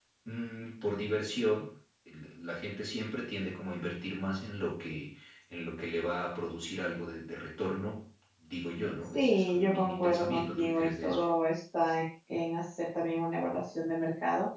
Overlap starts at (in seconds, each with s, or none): 9.1 s